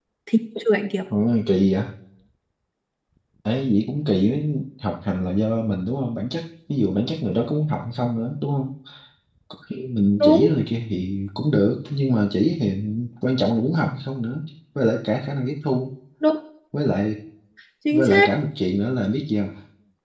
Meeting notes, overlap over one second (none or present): none